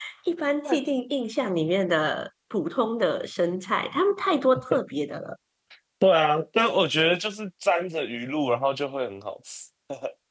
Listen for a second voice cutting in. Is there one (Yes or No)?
No